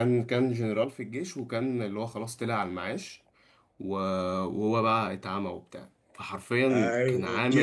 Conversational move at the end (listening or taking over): taking over